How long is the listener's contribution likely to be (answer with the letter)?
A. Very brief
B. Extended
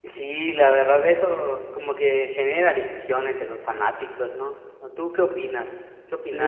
B